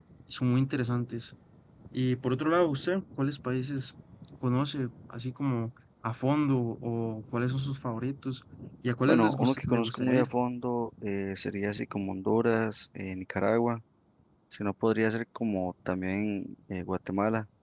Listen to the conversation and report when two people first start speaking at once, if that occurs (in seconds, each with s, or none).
9.1 s